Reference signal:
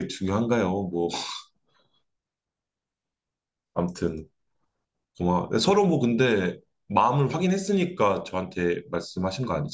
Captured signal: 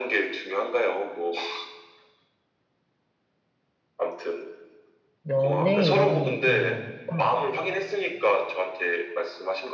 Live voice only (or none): 연애 이런 얘기인 것 같아.